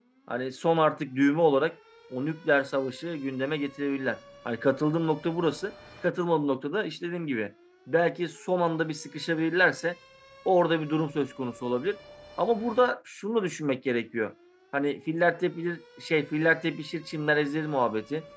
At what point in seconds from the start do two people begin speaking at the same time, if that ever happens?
none

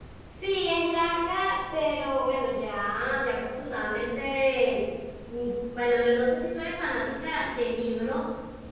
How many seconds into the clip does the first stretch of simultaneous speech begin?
none

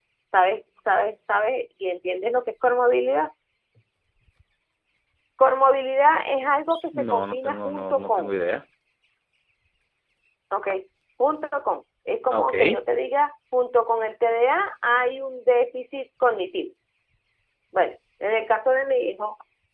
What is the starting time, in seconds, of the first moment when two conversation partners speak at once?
6.9 s

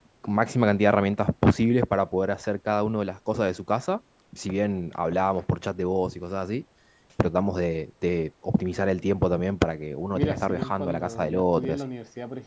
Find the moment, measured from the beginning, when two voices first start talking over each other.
10.2 s

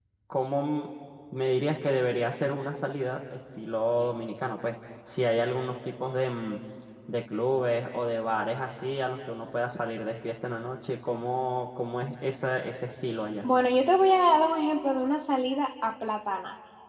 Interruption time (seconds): none

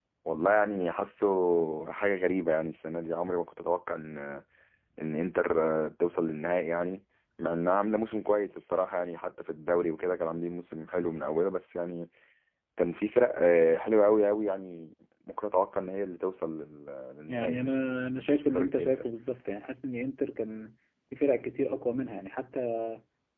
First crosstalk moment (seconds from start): 17.3 s

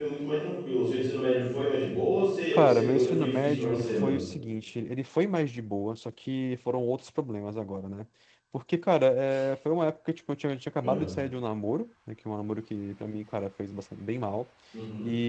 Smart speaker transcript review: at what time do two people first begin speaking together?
2.5 s

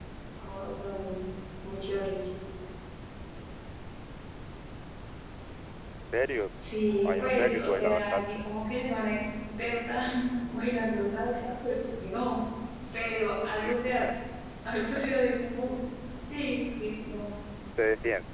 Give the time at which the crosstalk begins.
7.0 s

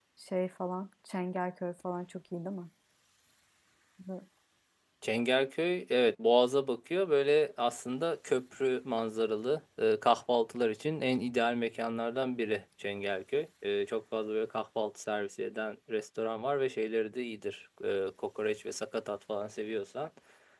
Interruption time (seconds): none

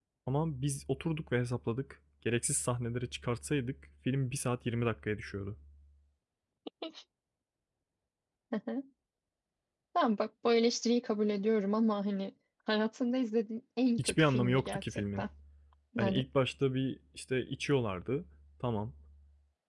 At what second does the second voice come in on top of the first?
14.0 s

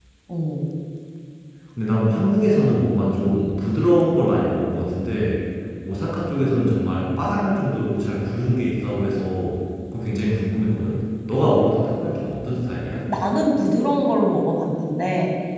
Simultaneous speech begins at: none

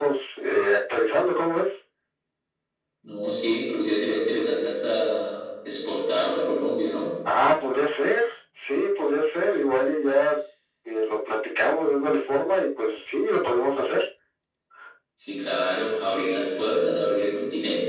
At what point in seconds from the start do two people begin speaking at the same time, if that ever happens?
none

